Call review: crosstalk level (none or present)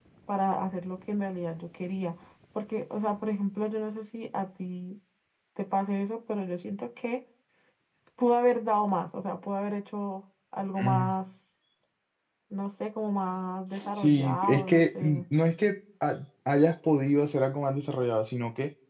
present